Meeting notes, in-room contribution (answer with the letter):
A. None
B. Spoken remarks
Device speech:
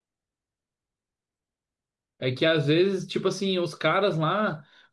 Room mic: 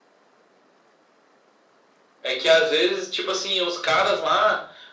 A